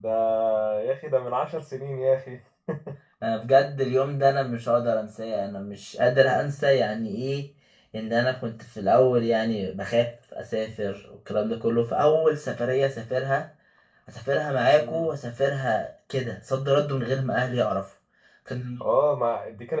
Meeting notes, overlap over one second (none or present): none